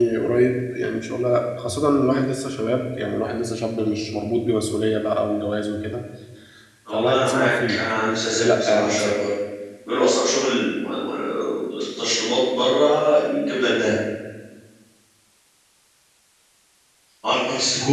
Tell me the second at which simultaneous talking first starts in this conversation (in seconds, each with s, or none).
6.9 s